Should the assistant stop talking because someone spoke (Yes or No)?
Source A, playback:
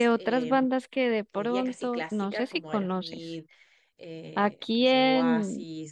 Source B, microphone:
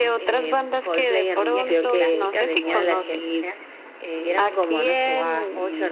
Yes